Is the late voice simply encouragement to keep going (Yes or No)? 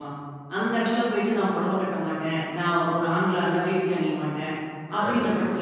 Yes